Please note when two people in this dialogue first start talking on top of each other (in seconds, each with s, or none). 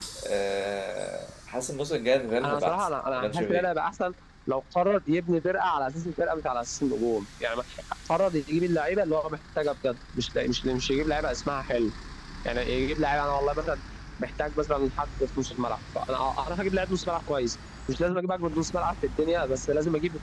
2.4 s